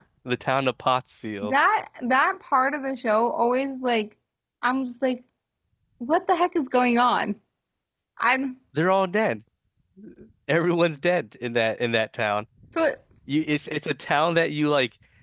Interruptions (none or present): none